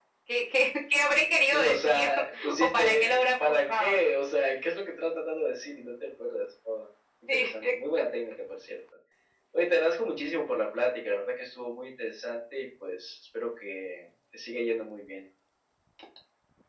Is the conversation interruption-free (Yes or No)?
No